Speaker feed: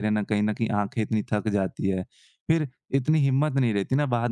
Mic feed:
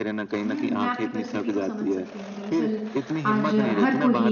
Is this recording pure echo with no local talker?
No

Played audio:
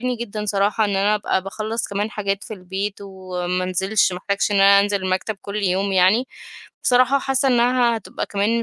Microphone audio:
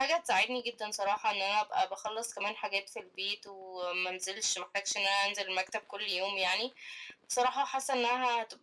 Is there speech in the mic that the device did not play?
No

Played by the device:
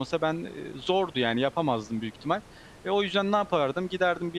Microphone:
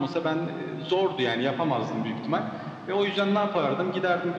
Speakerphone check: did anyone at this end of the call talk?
No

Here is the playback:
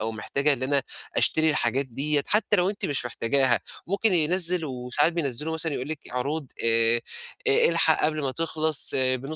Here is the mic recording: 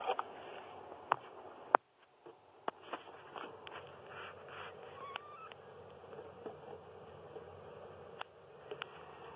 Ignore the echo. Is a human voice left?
No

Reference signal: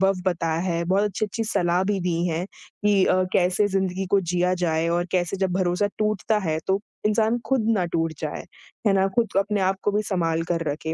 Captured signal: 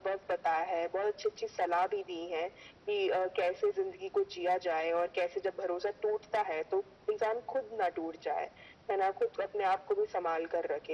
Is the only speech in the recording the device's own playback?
Yes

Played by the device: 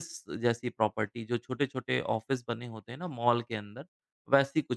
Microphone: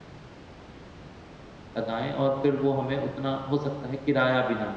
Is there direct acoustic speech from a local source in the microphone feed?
Yes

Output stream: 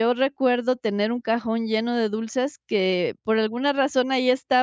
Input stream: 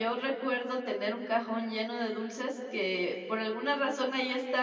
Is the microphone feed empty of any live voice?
Yes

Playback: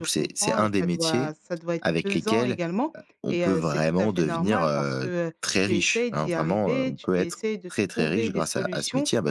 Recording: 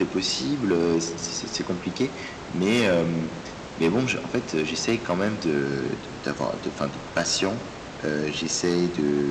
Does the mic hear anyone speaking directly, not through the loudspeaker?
Yes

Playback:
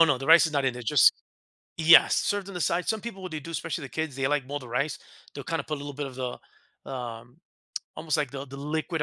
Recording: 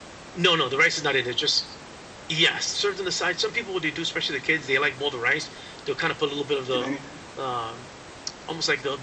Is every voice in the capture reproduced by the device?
No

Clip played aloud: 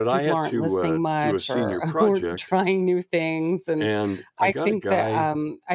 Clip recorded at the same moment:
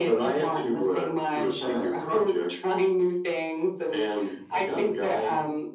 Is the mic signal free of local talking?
Yes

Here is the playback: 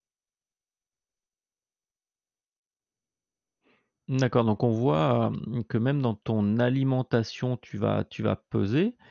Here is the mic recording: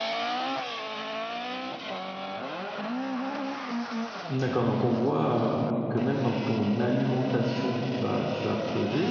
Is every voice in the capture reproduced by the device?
Yes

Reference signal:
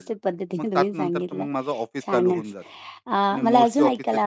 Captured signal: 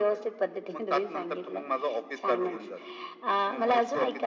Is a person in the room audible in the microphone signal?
No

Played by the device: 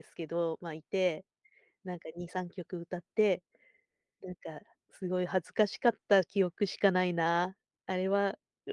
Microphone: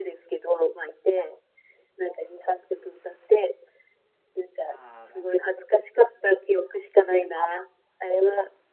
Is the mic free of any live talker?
No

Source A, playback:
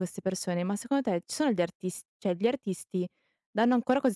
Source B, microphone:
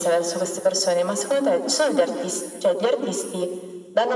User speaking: No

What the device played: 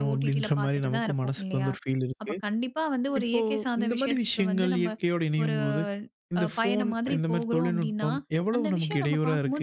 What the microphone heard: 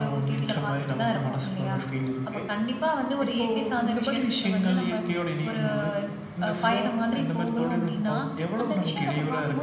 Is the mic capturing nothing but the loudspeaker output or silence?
Yes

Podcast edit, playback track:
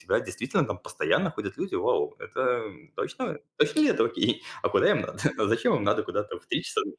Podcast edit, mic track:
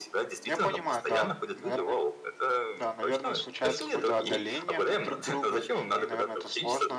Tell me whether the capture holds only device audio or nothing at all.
No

